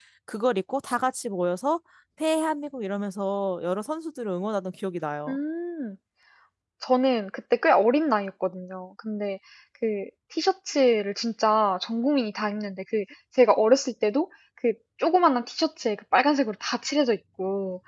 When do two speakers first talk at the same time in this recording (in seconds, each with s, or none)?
none